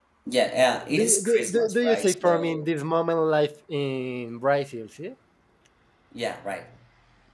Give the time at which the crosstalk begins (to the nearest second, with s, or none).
1 s